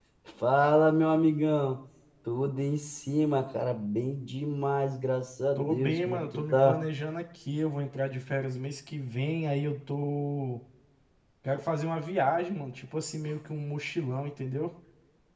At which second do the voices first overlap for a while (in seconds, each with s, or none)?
5.6 s